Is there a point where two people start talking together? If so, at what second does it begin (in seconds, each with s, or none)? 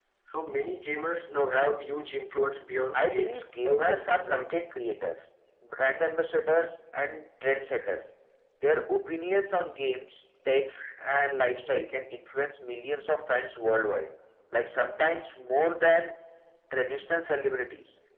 2.9 s